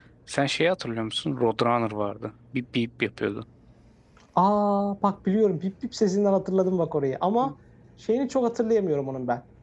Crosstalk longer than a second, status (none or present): none